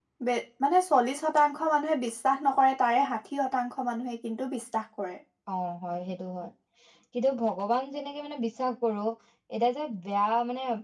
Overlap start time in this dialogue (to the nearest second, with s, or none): none